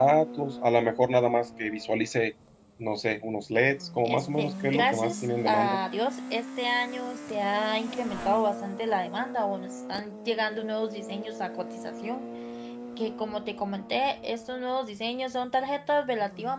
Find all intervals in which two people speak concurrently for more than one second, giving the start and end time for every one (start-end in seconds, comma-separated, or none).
4.0-5.8